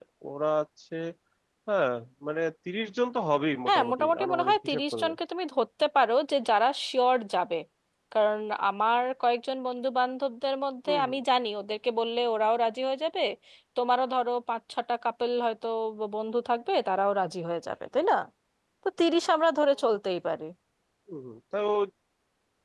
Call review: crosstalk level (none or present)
present